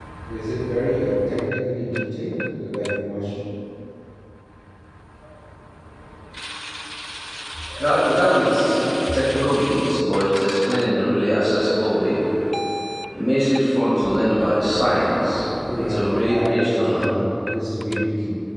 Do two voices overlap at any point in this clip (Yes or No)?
Yes